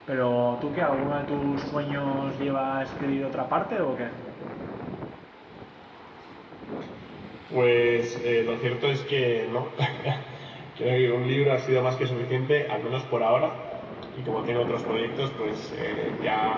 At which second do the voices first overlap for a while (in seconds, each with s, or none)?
none